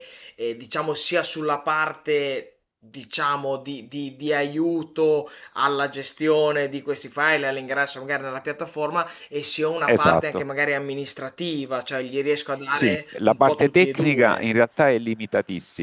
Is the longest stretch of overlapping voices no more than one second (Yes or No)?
No